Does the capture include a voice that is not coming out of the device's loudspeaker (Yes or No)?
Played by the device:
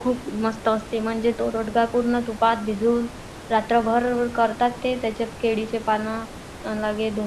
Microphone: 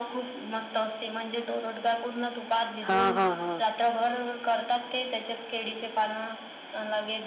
Yes